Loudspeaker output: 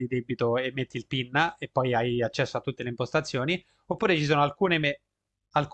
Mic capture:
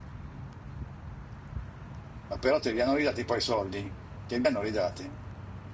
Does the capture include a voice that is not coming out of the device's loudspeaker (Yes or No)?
Yes